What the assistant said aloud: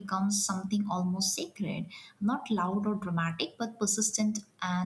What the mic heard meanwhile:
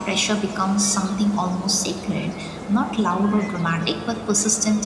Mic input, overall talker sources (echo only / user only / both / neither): echo only